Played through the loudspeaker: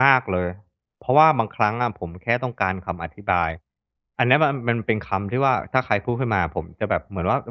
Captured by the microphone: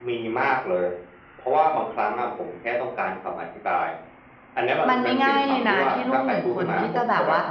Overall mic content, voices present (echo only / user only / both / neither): both